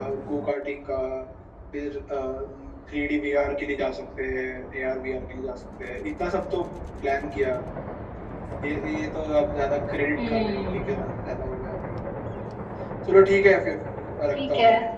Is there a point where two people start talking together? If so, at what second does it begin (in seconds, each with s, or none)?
10.1 s